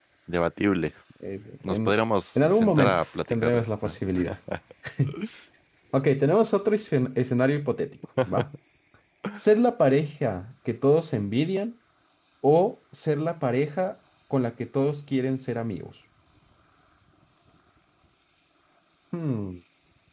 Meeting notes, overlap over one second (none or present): present